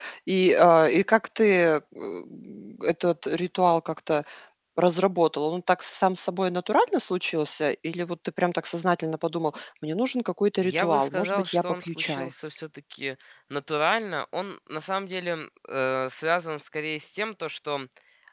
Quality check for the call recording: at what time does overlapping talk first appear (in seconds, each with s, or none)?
10.6 s